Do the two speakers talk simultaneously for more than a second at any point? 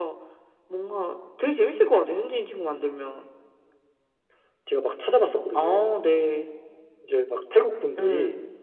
No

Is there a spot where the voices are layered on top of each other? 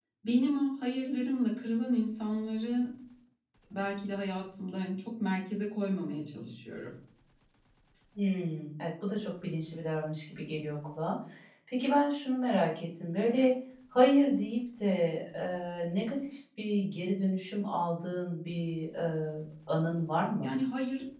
No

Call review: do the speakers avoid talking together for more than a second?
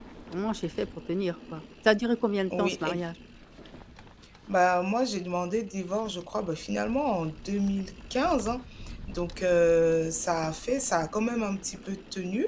Yes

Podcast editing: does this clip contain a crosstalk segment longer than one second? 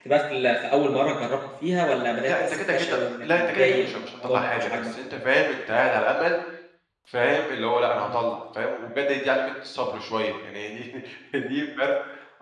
Yes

